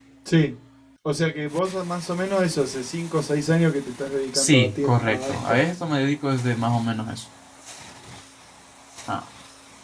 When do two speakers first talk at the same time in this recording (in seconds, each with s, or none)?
4.3 s